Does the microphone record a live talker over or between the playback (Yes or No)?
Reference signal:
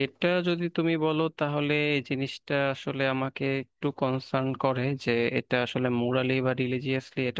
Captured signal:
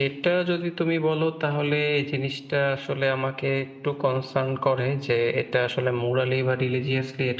No